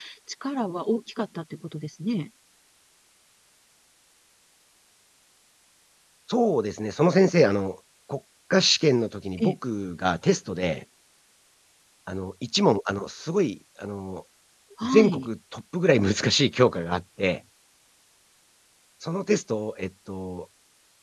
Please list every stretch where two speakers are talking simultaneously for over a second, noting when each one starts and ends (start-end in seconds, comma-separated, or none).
none